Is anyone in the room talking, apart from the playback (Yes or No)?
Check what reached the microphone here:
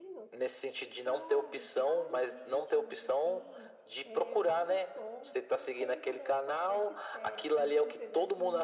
Yes